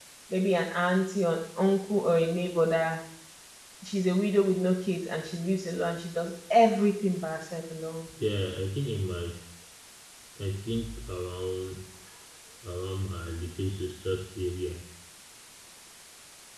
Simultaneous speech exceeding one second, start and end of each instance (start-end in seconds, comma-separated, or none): none